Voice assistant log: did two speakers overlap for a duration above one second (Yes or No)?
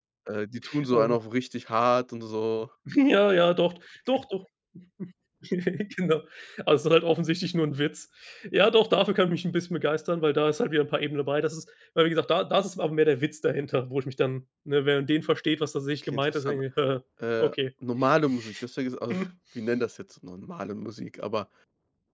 No